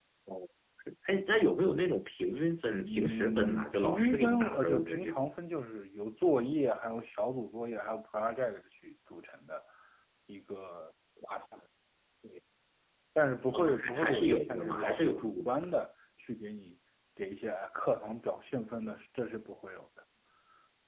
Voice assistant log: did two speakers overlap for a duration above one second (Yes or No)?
Yes